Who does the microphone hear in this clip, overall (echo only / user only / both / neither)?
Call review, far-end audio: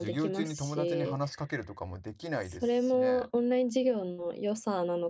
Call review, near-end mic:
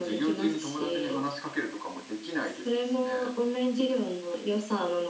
echo only